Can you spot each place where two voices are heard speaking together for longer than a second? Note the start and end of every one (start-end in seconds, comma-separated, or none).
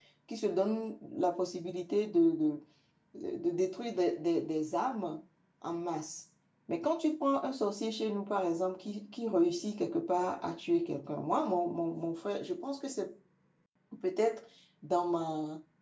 none